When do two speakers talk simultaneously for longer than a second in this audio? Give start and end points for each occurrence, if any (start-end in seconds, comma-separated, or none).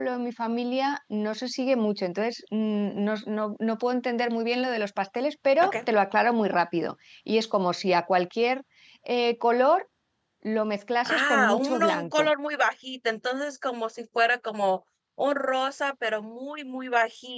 11.1-12.3